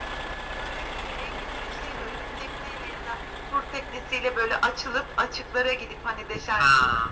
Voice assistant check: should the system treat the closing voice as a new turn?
No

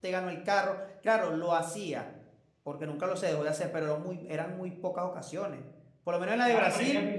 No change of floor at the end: No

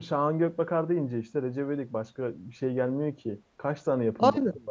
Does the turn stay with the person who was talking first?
Yes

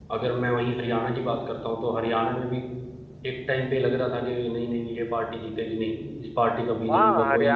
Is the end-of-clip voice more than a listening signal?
Yes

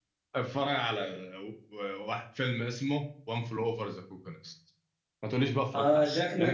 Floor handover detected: Yes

